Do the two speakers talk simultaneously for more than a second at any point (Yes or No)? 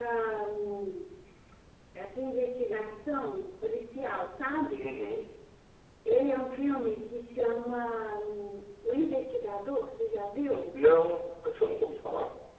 No